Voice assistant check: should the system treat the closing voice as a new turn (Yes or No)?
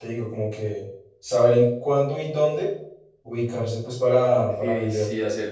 Yes